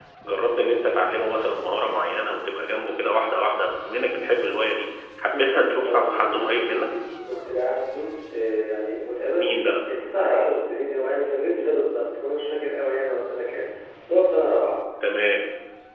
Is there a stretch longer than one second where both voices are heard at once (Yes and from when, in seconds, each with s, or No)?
Yes, from 5.3 s